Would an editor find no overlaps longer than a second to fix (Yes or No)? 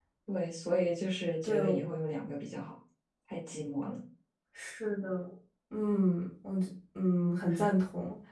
Yes